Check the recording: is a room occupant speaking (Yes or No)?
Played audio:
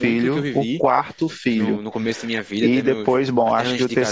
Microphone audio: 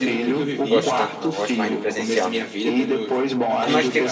Yes